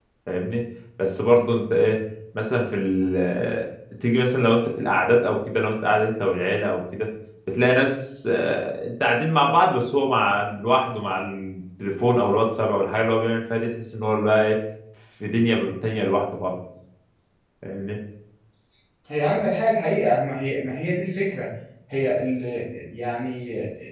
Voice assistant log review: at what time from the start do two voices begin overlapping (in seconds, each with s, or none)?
none